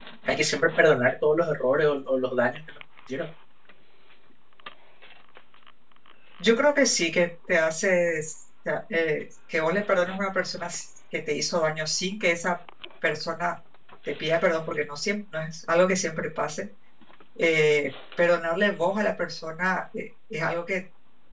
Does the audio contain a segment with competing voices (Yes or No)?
No